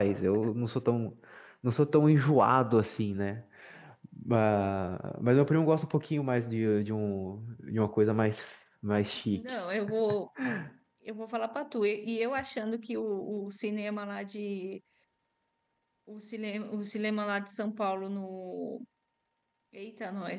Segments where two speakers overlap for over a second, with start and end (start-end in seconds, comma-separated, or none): none